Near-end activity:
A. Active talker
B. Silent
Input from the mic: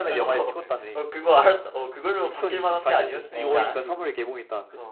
A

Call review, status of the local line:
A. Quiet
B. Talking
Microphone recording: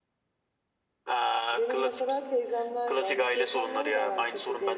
B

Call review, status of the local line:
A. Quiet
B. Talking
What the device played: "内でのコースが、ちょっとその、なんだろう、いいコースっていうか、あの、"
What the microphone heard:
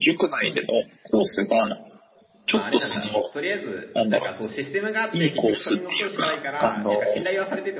B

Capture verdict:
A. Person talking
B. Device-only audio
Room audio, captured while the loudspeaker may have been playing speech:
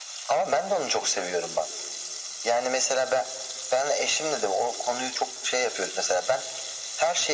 B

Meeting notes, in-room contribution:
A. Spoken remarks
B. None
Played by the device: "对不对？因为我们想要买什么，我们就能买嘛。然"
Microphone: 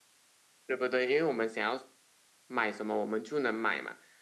B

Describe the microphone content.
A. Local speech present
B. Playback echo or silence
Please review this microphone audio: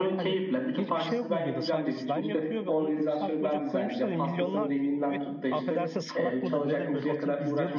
A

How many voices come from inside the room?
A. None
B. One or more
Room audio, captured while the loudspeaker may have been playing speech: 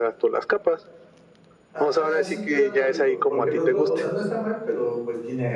B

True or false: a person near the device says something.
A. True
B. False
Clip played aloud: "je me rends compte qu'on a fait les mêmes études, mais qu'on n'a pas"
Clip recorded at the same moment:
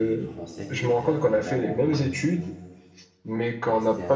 A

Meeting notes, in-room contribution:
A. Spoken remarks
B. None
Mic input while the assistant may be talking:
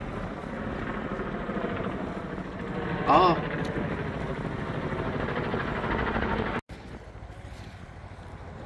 A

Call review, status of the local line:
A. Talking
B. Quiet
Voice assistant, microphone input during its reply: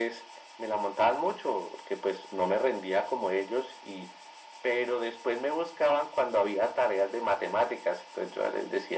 B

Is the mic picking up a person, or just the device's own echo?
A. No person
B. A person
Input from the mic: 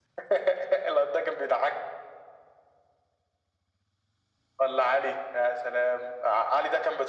A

